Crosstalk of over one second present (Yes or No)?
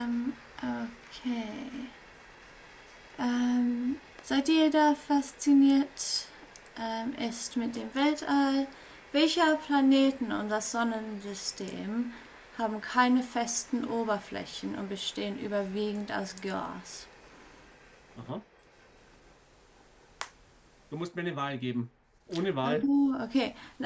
No